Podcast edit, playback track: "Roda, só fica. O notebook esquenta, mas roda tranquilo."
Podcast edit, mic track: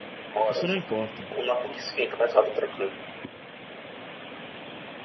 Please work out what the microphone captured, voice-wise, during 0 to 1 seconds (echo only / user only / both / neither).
both